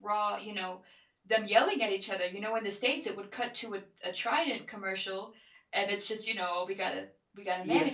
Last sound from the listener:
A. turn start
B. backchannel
A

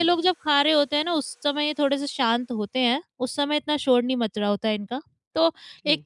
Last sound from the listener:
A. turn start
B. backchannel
B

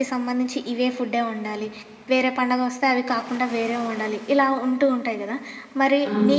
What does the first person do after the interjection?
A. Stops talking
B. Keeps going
B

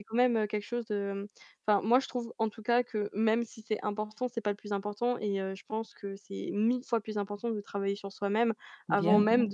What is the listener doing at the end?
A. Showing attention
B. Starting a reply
A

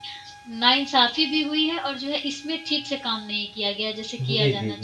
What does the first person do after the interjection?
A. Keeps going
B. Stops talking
B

